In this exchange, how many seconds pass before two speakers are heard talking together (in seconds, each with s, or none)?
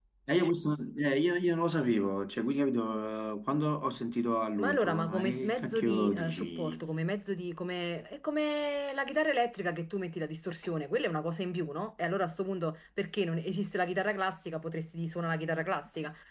4.6 s